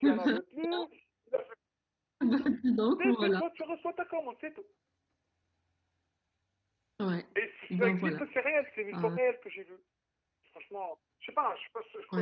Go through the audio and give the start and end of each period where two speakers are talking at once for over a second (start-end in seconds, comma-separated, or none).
none